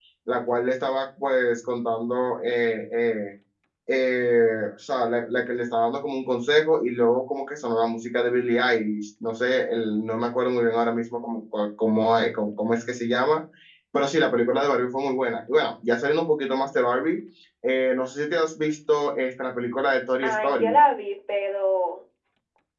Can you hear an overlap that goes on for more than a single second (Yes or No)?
No